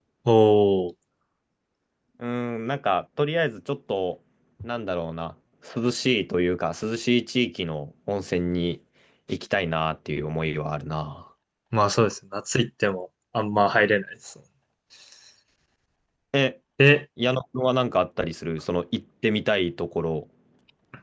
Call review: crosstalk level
none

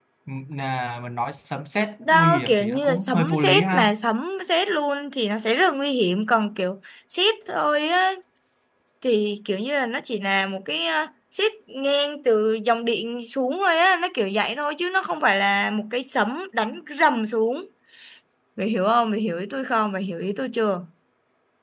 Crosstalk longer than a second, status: present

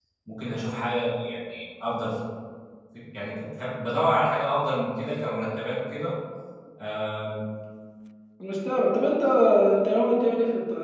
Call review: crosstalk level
none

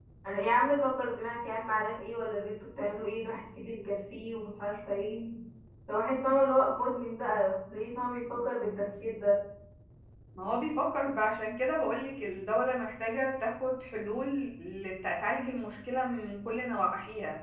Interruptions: none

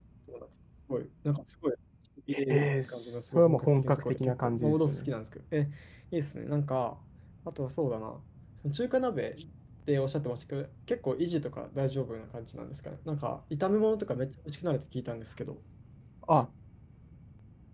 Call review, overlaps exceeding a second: present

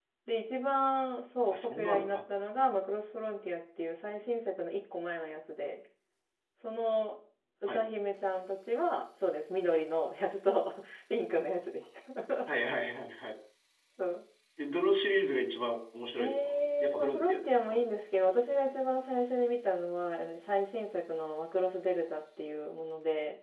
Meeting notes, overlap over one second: present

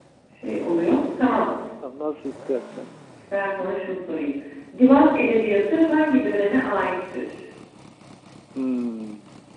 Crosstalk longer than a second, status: none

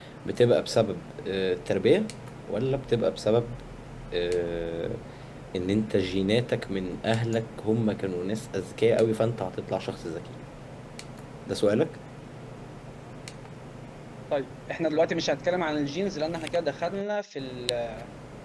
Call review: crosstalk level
none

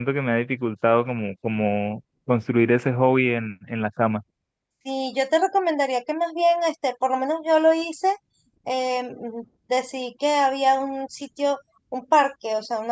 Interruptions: none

